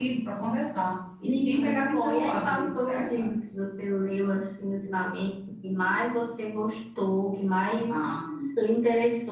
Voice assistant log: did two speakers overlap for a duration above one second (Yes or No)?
Yes